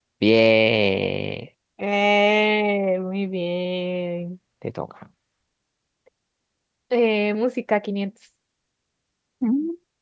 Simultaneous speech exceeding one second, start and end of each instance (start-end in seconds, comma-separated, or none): none